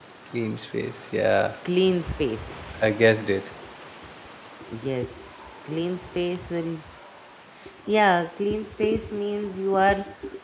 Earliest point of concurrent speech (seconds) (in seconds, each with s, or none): none